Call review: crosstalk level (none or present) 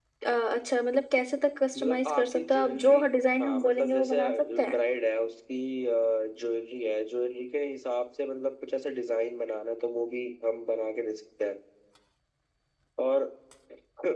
present